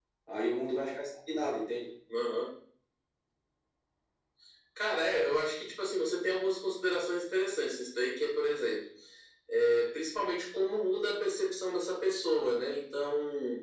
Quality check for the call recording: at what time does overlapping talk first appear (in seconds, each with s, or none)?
none